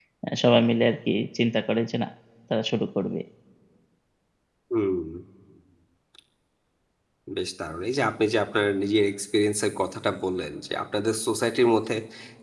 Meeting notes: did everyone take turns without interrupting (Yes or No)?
Yes